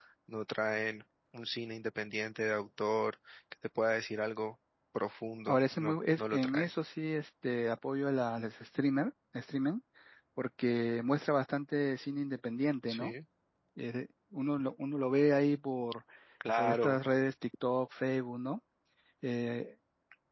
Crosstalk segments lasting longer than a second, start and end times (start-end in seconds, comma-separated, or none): 5.5-6.7